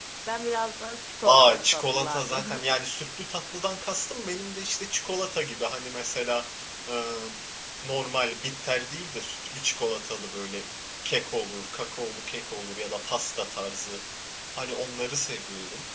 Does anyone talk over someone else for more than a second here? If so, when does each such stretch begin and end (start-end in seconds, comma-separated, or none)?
1.2-2.6